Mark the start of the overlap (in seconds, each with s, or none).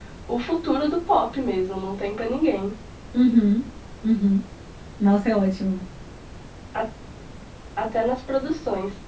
none